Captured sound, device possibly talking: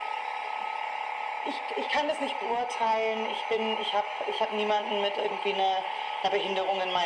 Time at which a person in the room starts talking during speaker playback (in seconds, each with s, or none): none